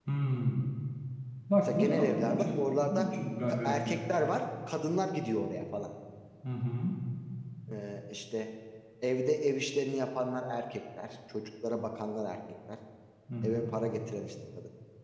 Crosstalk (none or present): present